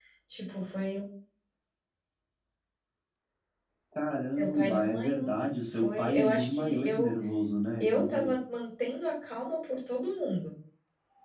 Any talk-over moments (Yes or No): Yes